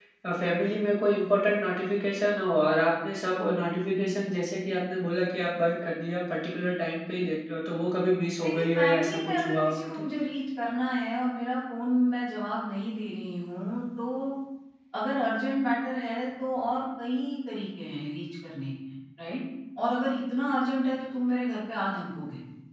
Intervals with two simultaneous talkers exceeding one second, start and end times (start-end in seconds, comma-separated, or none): 8.4-10.0